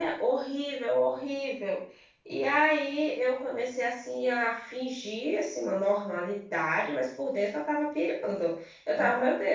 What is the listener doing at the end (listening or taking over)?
listening